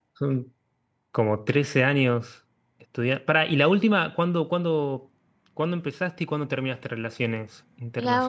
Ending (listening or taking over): taking over